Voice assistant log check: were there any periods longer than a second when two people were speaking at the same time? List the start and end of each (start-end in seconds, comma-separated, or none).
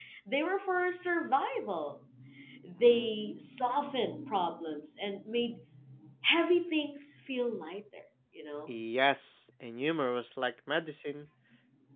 none